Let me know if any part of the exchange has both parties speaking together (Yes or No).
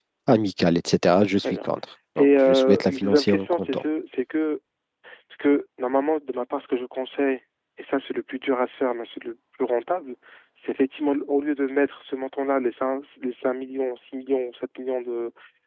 Yes